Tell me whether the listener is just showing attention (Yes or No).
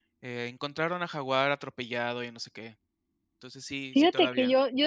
No